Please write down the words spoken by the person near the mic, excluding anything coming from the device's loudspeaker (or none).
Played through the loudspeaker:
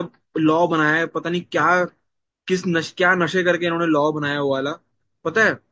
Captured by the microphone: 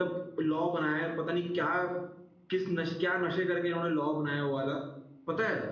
none